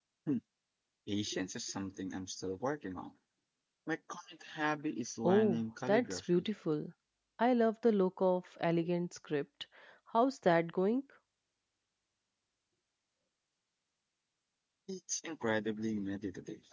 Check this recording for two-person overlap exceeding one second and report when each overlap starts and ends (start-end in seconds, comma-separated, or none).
5.2-6.4